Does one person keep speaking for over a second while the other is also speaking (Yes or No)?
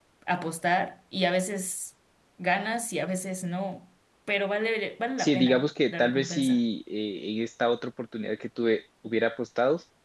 Yes